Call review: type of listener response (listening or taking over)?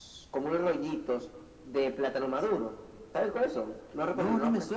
taking over